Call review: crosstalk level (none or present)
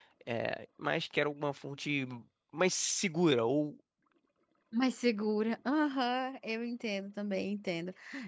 none